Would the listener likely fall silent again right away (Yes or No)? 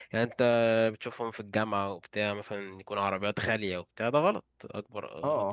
No